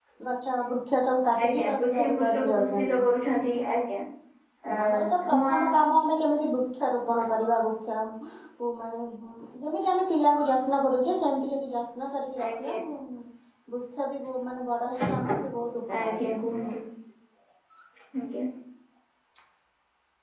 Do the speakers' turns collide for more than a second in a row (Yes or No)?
Yes